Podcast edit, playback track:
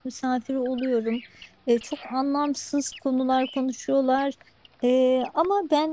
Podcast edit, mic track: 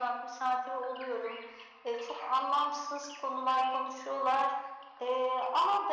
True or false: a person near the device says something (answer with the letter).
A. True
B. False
B